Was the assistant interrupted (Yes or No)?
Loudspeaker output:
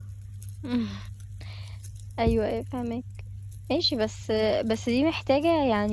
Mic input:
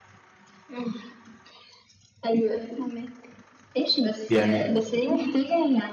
Yes